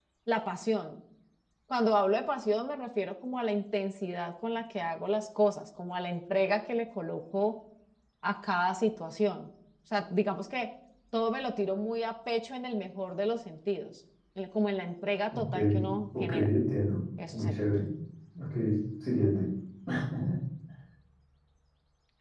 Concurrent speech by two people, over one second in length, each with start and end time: none

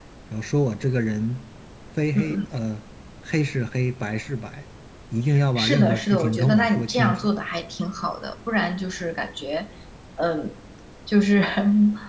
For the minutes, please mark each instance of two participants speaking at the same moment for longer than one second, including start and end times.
5.5-7.3

